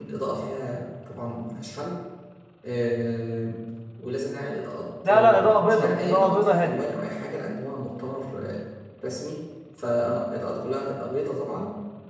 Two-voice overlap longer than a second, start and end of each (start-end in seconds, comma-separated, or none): 5.0-6.8